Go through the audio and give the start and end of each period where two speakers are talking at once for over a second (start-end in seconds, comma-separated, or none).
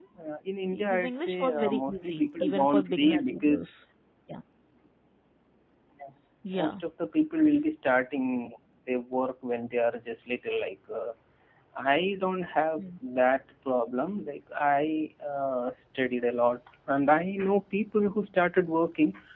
0.7-3.6